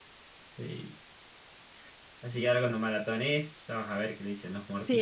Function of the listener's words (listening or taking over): taking over